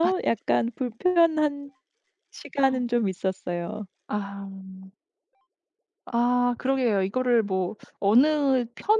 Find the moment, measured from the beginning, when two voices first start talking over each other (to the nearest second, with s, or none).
none